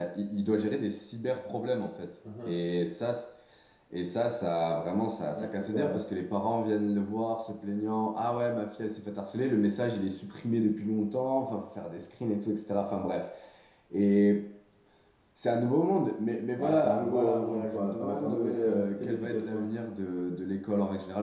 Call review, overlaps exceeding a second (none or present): present